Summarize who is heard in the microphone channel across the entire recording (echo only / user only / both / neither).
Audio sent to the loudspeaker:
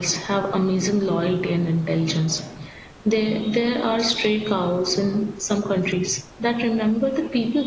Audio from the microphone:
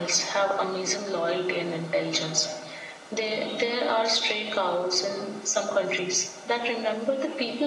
echo only